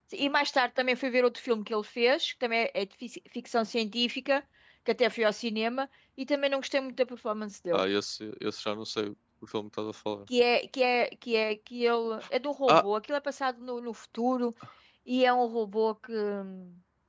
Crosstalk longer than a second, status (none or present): none